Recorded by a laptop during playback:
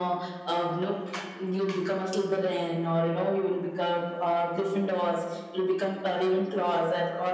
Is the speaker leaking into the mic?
Yes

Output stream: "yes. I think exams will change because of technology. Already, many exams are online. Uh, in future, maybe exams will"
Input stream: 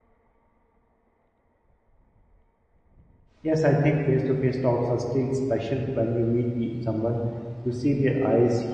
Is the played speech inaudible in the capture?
Yes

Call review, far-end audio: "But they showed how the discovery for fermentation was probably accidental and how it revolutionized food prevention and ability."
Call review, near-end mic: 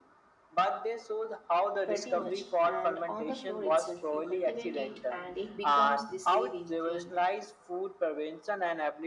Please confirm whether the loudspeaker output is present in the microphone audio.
Yes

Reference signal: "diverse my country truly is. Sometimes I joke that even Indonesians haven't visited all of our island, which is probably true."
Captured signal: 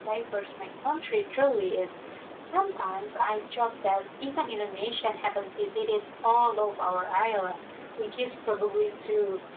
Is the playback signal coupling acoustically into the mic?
Yes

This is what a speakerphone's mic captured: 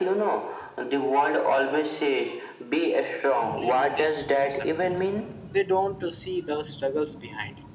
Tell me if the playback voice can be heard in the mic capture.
Yes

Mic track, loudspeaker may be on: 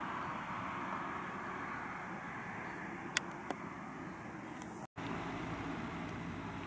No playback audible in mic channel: Yes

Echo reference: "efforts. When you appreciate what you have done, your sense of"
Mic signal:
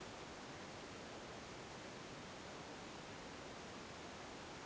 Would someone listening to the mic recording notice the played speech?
No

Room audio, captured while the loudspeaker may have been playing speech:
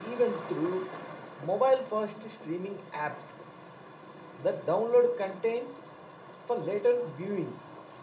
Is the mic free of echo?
No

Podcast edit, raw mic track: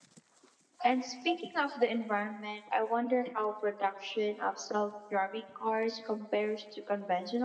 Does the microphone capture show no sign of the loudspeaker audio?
Yes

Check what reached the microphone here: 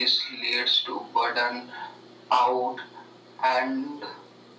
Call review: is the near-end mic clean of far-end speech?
No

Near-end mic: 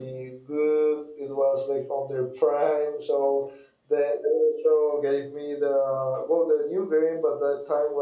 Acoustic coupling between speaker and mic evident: No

